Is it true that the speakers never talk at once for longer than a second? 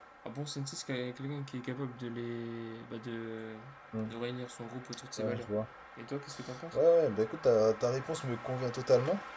Yes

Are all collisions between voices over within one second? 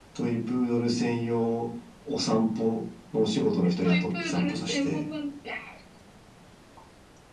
No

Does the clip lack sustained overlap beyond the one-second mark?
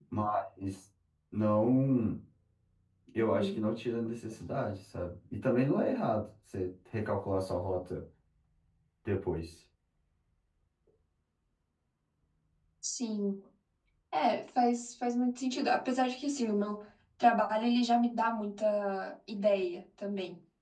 Yes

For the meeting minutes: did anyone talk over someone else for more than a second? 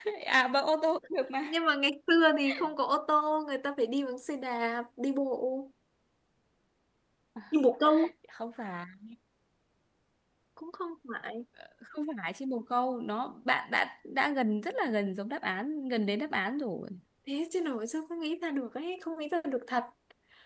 No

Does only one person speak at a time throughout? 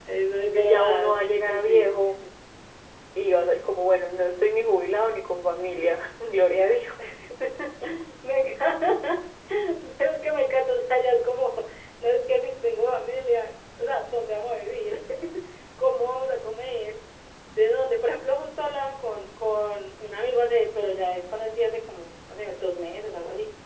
No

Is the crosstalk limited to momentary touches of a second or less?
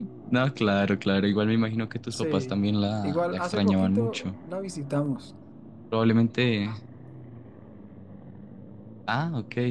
No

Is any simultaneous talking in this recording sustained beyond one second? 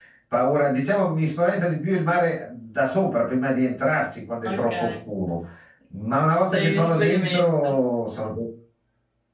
Yes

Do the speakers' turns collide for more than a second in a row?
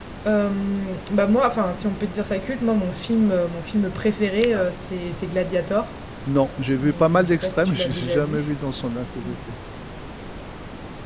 Yes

